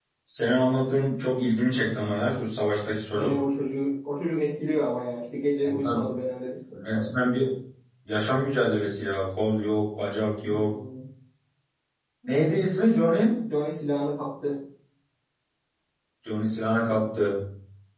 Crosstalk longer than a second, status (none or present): none